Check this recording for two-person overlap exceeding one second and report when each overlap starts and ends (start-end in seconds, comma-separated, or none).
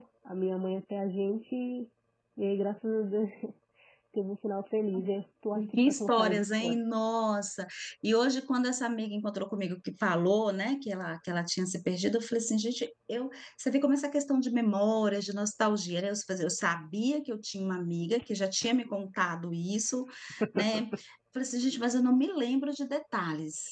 5.6-6.8